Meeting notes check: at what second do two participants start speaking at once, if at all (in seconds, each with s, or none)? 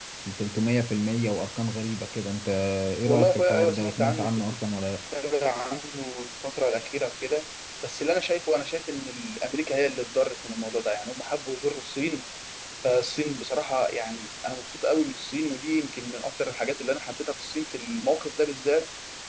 3.1 s